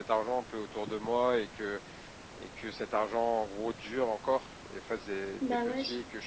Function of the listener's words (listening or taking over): listening